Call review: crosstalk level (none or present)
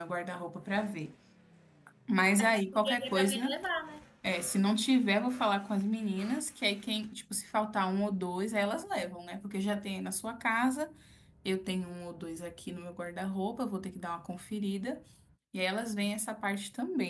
present